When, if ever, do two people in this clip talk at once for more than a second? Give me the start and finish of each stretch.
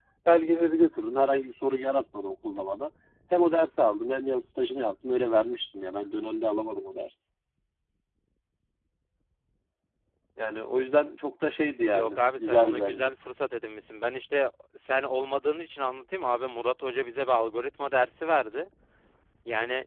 11.9-13.1

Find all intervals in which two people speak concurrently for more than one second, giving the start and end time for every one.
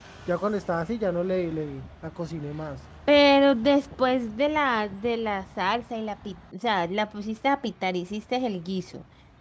none

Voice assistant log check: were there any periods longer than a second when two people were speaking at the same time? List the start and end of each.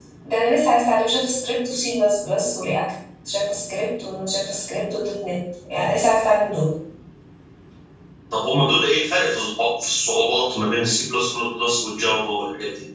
none

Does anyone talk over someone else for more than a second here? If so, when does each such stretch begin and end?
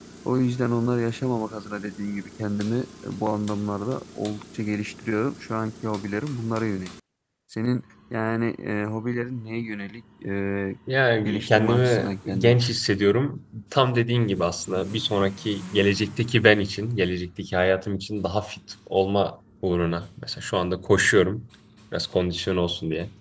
11.2-12.6

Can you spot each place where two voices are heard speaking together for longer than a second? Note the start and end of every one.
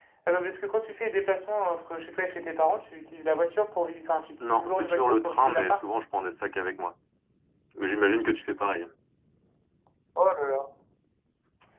4.4-5.8

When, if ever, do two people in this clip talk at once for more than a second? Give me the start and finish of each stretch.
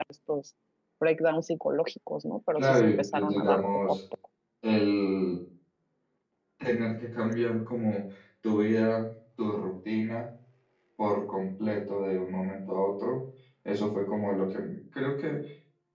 2.6-4.0

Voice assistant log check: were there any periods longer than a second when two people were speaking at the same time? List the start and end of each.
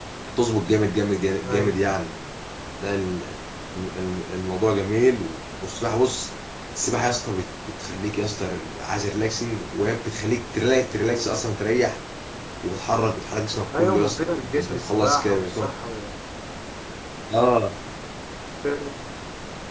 13.8-15.7

